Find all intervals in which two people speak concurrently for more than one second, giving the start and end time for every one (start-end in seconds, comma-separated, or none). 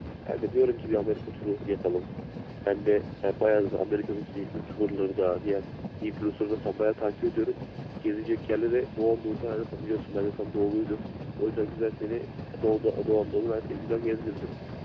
none